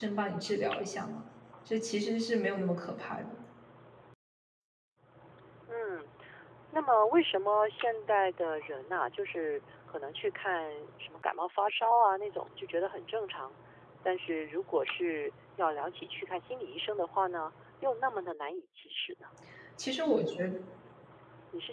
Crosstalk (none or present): none